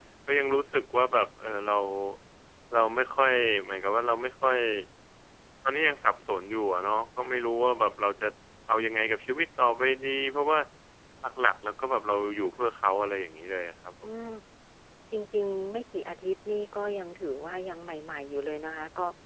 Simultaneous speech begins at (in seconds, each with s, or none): none